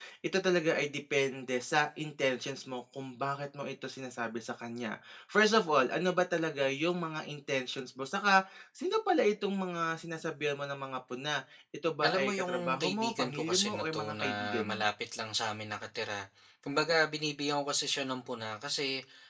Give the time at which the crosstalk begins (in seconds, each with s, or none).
12.0 s